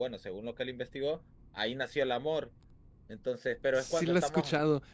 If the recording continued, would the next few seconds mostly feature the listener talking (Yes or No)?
Yes